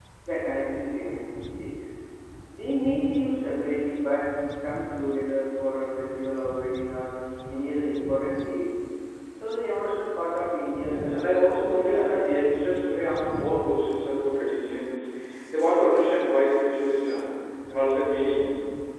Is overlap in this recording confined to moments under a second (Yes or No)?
No